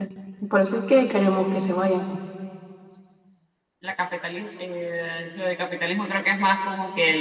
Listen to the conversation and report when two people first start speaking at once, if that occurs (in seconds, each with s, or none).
none